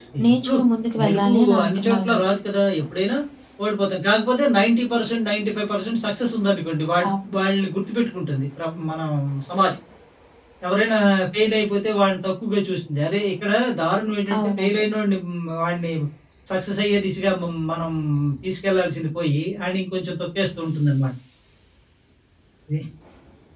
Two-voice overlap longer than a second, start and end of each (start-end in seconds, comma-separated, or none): 1.0-2.3